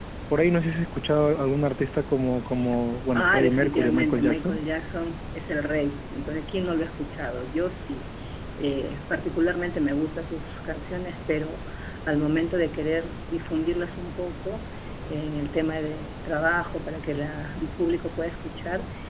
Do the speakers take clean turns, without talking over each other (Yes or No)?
No